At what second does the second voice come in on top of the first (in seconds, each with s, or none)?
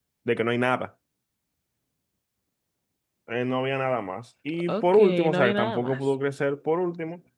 4.5 s